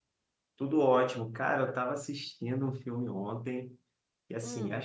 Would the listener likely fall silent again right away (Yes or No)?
Yes